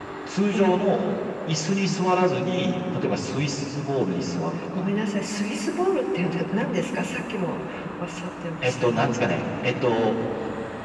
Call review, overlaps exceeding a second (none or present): none